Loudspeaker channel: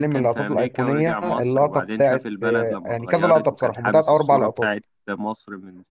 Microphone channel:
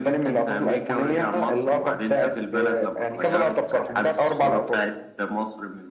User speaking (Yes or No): No